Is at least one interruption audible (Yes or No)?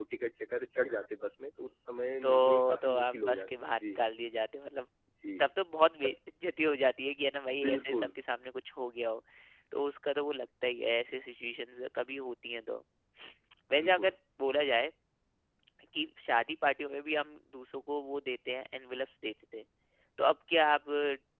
Yes